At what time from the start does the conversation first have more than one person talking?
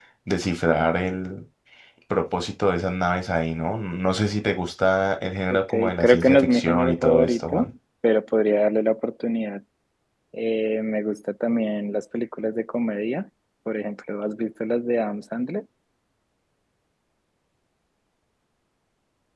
5.5 s

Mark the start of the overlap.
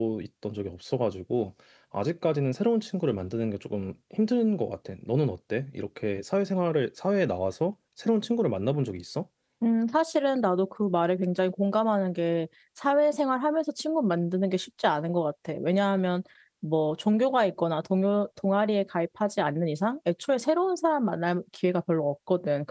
none

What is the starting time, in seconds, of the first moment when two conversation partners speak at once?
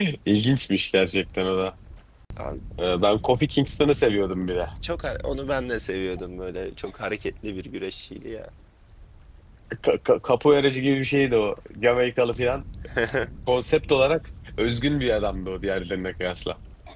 none

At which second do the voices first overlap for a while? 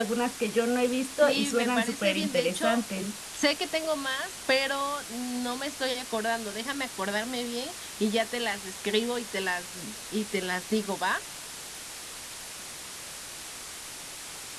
1.2 s

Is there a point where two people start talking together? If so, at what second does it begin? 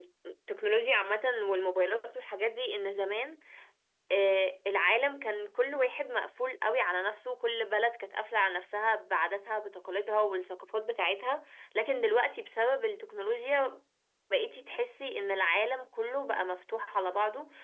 none

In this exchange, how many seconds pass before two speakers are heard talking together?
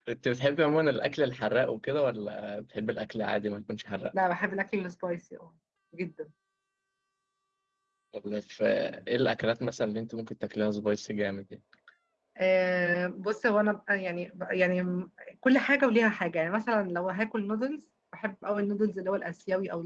none

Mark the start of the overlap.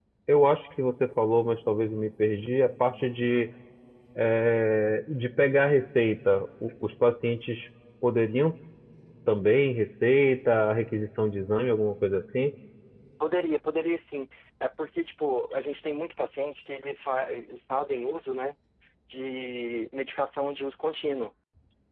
none

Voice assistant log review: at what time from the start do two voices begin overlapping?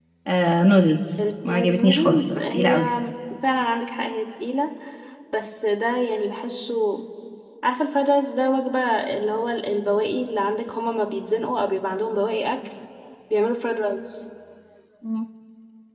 1.4 s

